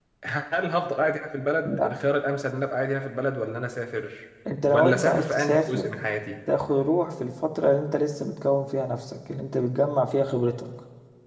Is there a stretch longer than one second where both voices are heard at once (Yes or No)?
Yes